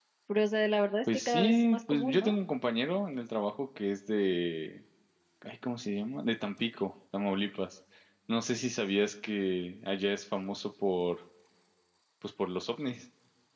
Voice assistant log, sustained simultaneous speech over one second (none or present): present